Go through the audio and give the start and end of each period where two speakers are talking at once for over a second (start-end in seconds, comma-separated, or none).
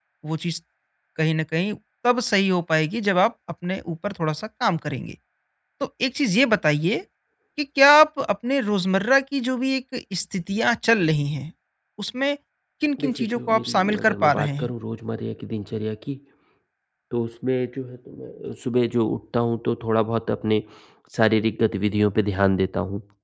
13.0-14.7